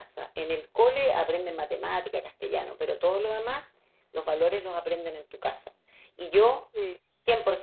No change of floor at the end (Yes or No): Yes